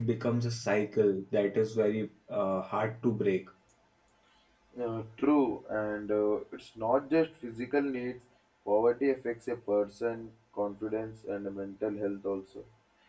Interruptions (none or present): none